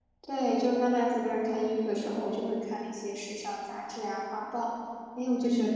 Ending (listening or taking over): taking over